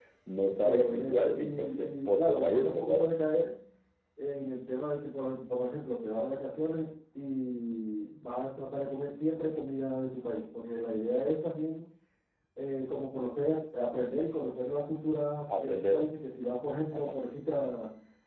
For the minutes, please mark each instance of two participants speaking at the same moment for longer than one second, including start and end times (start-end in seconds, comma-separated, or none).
0.6-3.0